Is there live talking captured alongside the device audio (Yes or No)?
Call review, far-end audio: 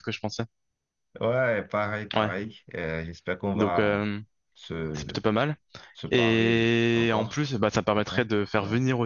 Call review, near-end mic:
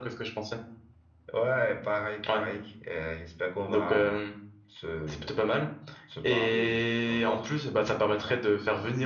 No